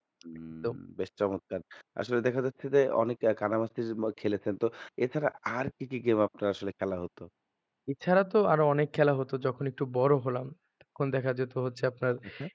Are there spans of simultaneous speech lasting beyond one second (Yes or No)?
No